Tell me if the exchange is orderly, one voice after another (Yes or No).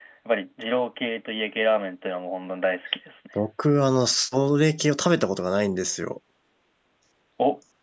Yes